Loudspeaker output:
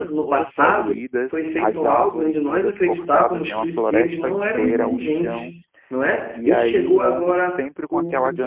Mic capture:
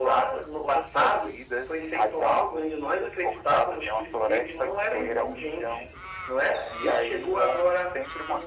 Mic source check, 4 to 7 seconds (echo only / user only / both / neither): echo only